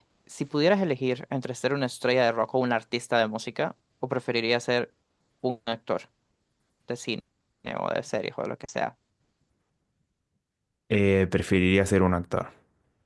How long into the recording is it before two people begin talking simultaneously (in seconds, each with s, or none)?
none